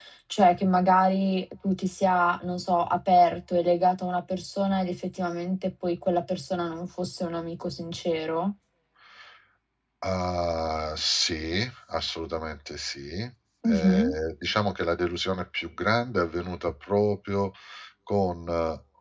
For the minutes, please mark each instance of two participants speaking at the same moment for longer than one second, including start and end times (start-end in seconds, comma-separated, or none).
none